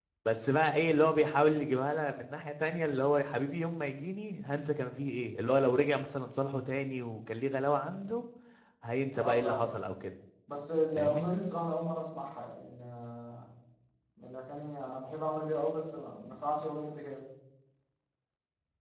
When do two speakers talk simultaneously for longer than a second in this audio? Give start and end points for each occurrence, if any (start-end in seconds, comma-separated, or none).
none